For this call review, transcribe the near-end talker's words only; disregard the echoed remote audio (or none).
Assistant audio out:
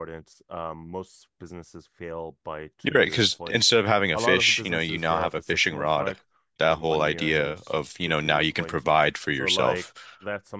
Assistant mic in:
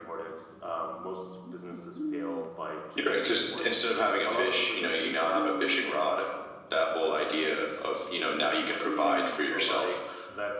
none